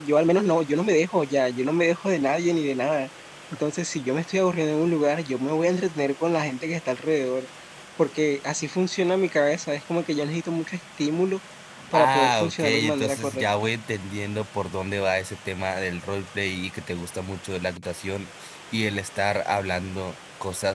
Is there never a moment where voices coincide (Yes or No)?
No